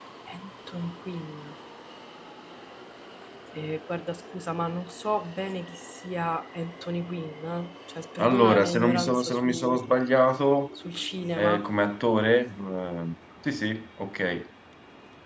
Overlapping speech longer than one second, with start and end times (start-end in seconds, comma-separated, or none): 8.2-9.8